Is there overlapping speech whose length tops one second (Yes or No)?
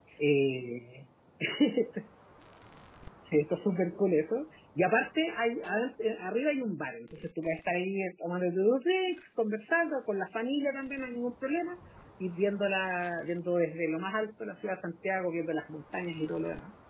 No